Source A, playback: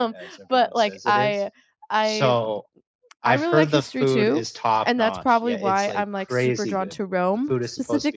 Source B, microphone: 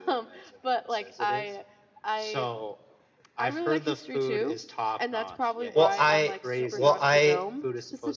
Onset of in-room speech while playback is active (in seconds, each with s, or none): 5.7 s